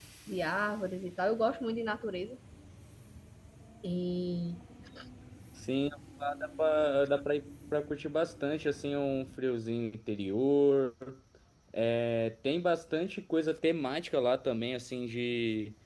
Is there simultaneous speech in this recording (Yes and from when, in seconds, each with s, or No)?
No